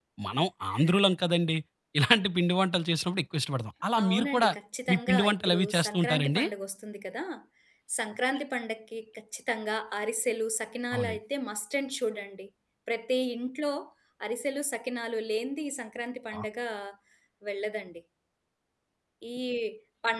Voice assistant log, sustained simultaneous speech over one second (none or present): present